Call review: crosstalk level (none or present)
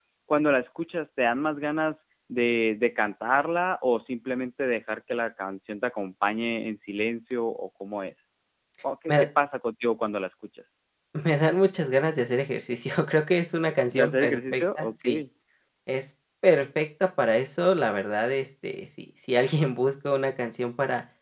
present